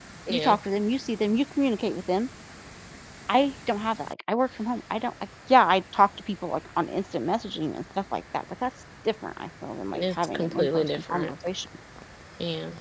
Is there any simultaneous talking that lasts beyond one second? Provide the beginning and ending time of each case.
9.9-11.3

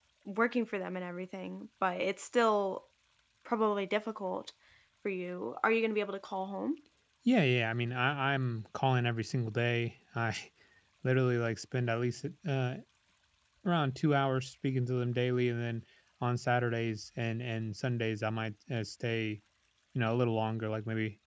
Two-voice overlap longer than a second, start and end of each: none

